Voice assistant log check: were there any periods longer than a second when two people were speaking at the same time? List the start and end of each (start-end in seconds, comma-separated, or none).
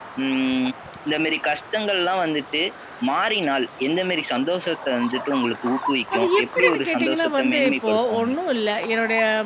6.2-8.3